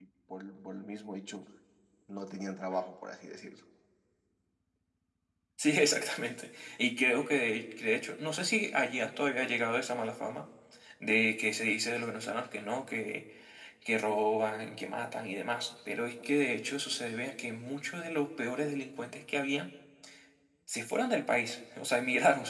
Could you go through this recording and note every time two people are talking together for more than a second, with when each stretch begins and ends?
none

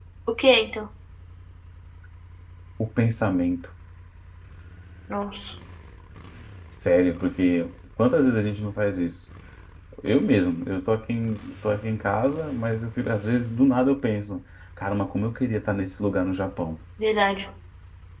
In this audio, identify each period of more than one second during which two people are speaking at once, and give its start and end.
none

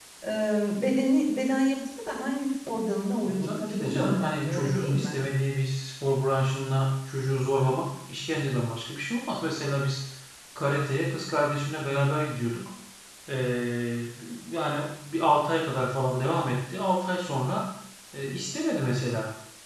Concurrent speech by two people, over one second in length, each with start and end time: 3.4-5.2

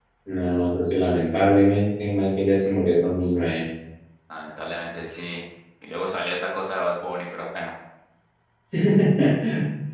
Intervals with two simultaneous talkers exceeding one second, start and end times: none

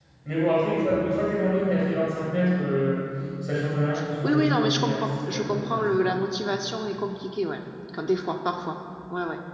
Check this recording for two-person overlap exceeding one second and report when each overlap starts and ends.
4.2-5.9

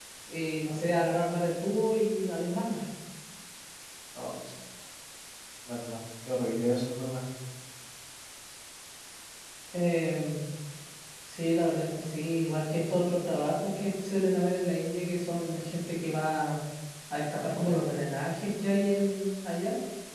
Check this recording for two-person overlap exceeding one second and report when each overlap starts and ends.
none

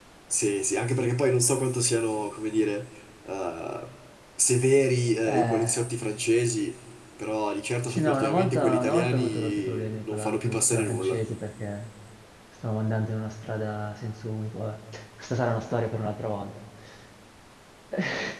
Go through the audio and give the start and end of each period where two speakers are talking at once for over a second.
7.9-11.2

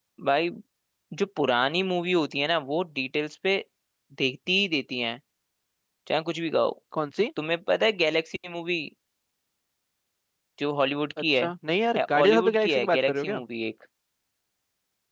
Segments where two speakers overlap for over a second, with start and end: 12.0-13.4

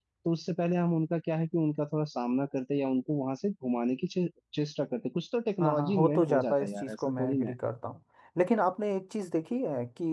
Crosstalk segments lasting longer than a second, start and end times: 5.6-7.5

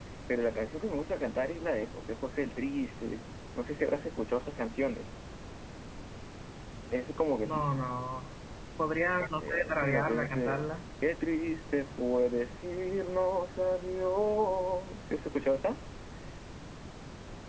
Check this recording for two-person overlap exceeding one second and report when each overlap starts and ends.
9.4-10.6

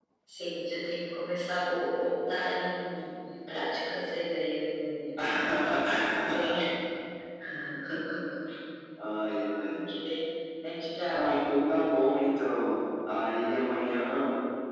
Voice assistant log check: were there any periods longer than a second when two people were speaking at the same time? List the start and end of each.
none

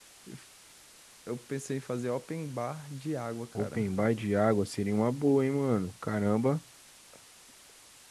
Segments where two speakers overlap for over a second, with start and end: none

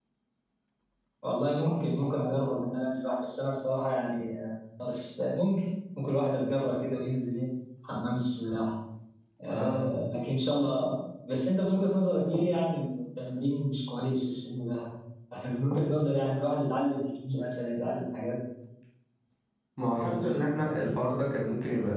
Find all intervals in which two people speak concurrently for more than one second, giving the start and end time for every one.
none

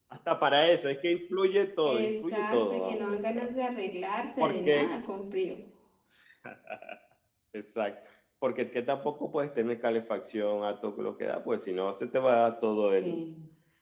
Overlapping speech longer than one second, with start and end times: 1.8-3.5

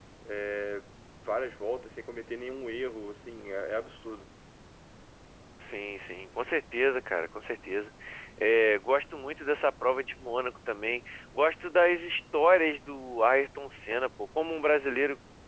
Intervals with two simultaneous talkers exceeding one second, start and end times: none

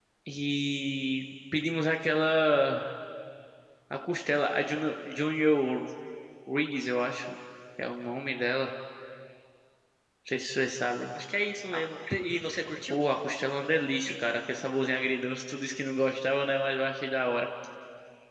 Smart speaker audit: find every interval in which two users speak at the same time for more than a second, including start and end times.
none

